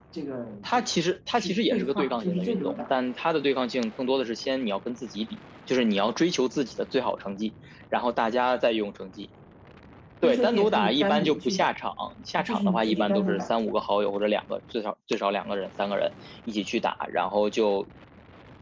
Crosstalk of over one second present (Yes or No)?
Yes